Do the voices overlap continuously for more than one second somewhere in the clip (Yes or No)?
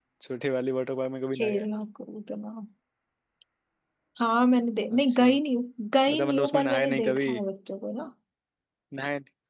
Yes